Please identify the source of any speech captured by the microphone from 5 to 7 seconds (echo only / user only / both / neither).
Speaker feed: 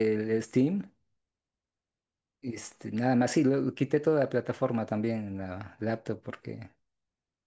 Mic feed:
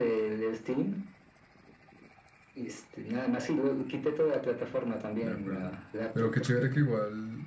both